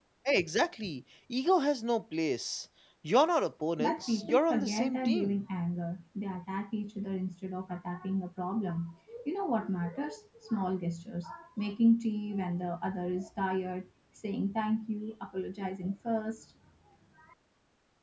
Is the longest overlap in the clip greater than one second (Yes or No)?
Yes